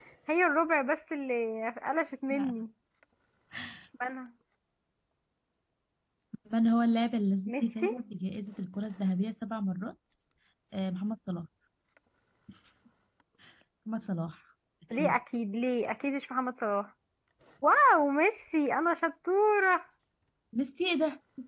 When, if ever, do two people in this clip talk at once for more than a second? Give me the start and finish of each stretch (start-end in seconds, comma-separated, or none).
none